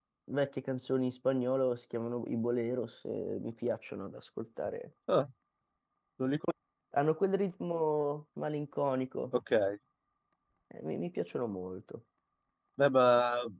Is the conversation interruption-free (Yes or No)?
Yes